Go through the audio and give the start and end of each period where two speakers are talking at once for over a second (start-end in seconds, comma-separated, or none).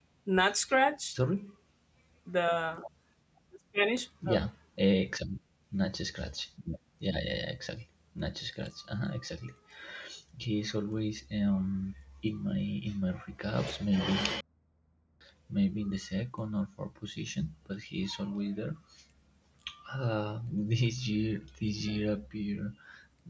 none